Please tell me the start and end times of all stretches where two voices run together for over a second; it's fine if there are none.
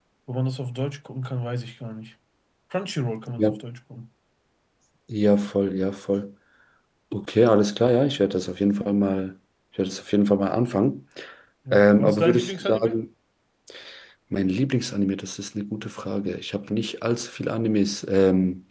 11.7-13.0

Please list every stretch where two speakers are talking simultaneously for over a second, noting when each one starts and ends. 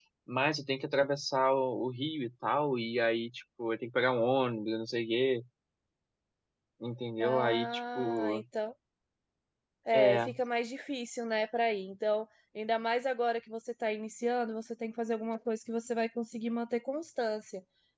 7.2-8.4

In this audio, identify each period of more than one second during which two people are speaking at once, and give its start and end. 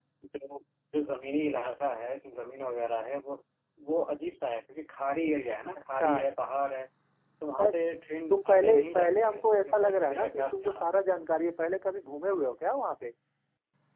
8.3-10.8

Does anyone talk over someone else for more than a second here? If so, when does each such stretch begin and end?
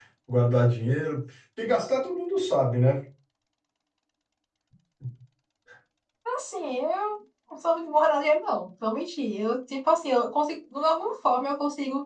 none

